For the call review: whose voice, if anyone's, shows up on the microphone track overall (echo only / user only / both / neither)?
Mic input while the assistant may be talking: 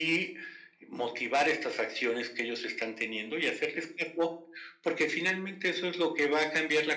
echo only